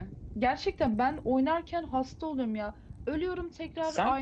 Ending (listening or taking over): listening